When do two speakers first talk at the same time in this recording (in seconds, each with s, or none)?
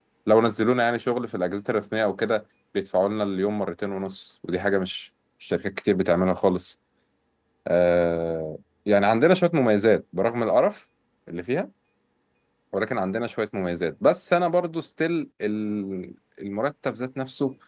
none